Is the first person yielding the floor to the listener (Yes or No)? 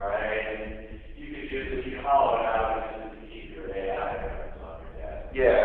Yes